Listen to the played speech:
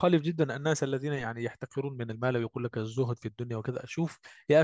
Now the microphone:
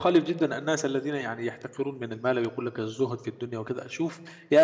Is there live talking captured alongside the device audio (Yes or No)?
No